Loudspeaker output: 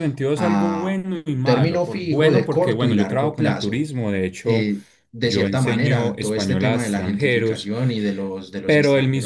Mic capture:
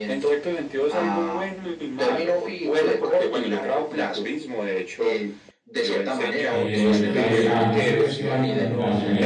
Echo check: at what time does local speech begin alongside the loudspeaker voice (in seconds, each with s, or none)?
6.5 s